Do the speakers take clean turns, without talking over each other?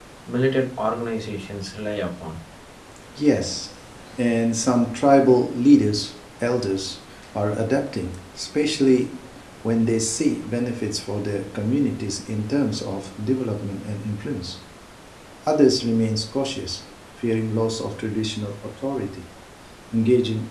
Yes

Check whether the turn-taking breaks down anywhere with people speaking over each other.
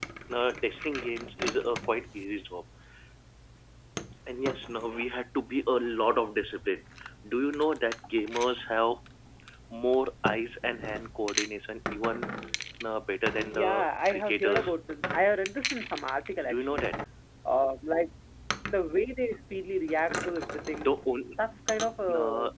Yes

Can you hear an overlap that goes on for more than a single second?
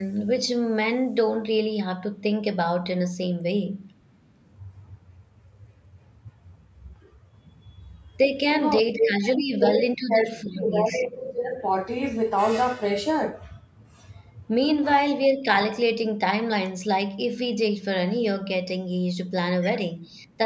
Yes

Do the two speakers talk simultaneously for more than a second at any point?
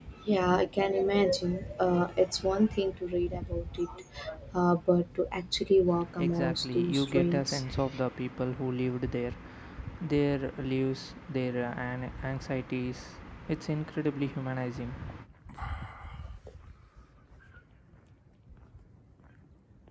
Yes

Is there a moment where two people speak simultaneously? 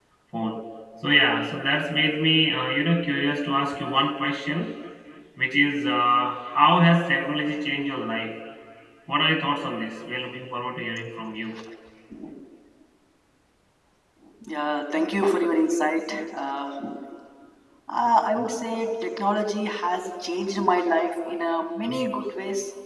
No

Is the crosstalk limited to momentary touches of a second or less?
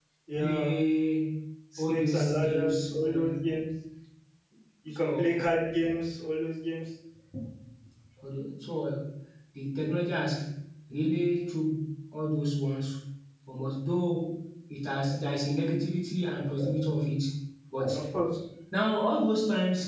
No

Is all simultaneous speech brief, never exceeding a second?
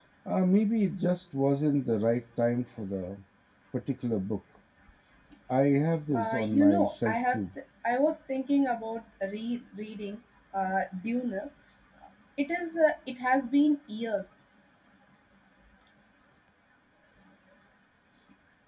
No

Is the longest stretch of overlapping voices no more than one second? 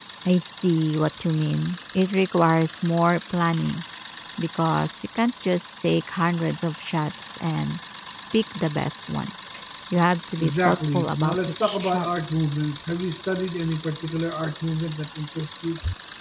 No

